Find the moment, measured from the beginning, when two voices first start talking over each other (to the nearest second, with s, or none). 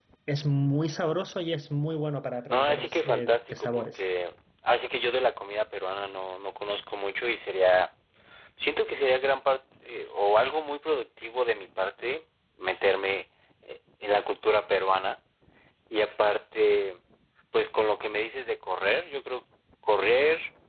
2 s